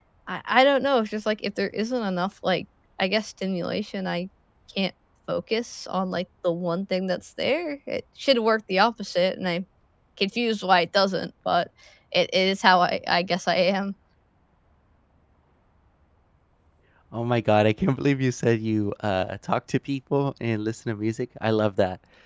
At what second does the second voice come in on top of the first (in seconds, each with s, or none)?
none